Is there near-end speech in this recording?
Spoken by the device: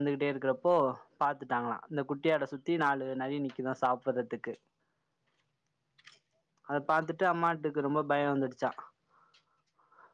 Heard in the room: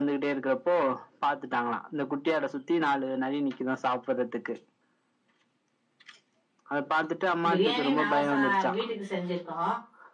Yes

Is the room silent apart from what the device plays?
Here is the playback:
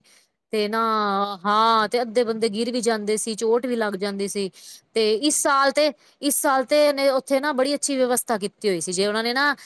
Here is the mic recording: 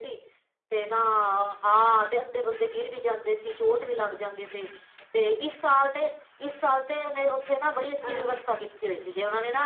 No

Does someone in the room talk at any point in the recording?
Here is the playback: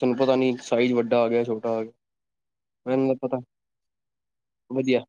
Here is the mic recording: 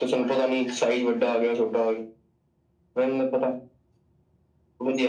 No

